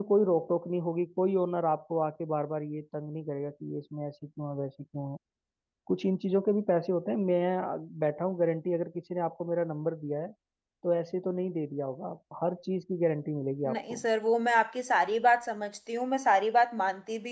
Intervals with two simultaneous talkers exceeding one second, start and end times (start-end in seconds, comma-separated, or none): none